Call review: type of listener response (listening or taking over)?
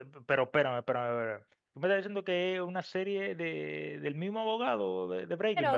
taking over